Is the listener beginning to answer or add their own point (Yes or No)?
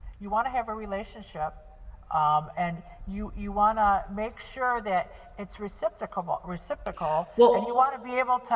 No